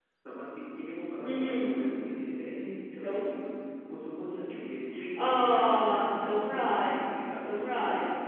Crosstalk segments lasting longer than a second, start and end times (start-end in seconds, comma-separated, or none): 5.2-7.0